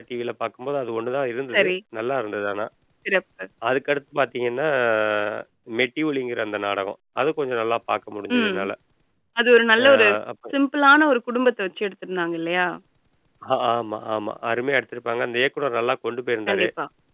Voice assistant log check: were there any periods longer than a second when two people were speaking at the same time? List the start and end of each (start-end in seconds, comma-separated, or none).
none